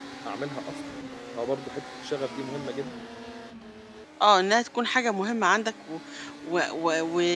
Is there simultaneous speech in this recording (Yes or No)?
No